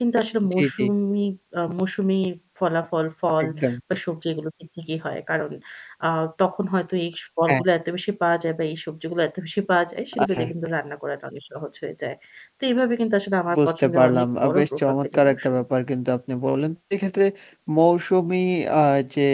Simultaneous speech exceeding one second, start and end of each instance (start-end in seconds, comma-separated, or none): 13.6-15.6